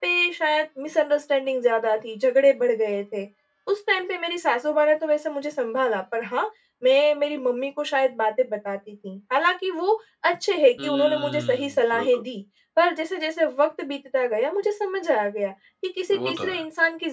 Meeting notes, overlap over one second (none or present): present